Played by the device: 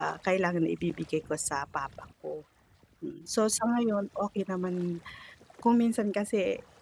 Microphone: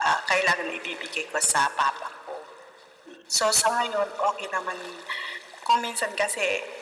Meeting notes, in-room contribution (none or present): none